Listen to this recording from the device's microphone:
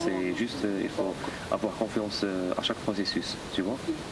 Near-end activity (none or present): none